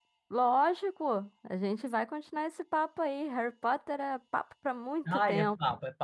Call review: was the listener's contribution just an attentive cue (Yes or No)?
No